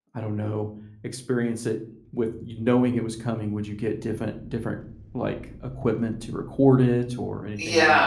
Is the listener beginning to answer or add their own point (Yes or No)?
Yes